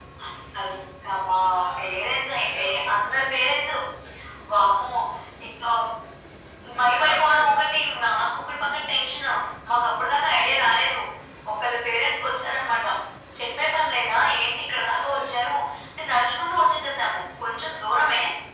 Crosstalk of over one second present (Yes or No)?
Yes